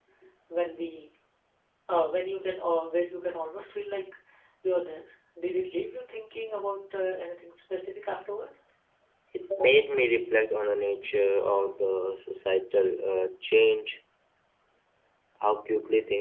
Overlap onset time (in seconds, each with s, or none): none